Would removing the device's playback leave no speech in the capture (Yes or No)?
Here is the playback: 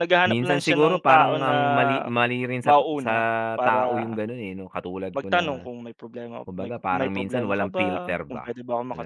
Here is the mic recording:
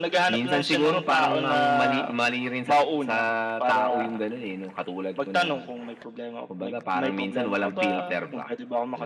Yes